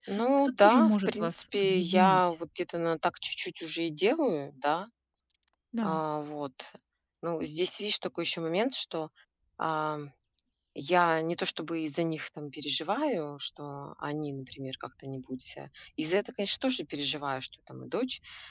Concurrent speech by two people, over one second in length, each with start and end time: 0.6-2.2

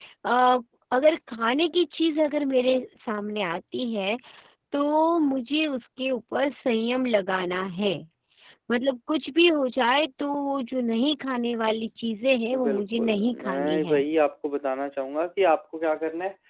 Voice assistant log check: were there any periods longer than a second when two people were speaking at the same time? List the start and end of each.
12.6-14.0

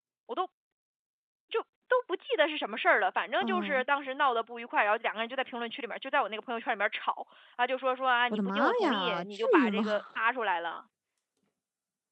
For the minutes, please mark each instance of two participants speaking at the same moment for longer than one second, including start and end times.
8.3-10.0

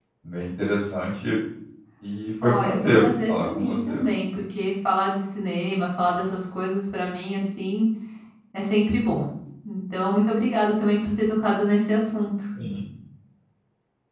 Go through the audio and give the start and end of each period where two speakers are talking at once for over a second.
2.4-4.0

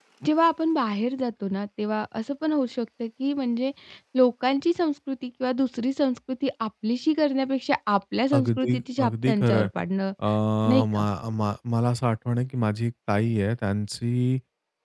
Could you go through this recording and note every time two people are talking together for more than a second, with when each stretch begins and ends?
8.3-9.7

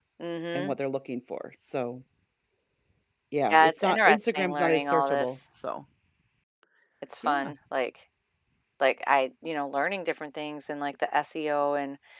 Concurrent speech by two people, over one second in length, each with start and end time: 3.5-5.4

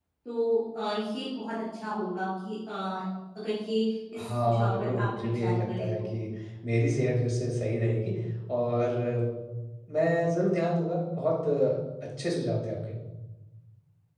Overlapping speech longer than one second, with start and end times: 4.2-6.1

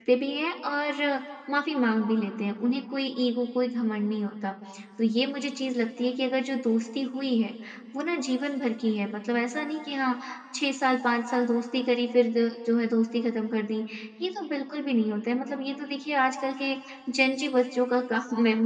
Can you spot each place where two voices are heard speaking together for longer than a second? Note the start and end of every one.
none

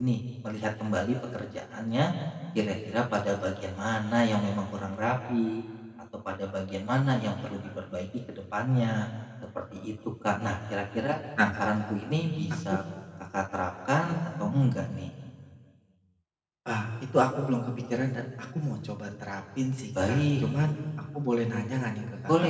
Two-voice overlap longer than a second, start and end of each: none

